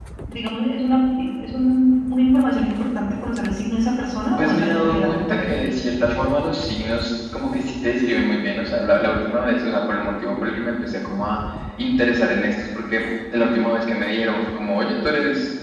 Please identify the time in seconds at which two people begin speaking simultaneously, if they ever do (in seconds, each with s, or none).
4.4 s